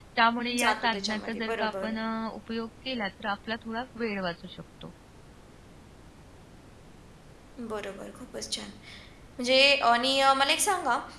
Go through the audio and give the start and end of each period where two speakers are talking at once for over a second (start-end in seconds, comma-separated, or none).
0.6-1.9